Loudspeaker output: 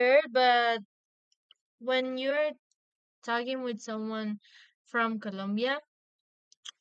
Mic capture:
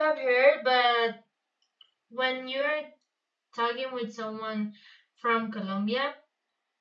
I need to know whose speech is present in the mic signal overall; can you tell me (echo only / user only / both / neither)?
echo only